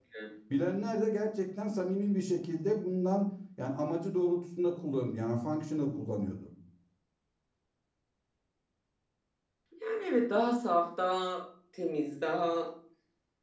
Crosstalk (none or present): none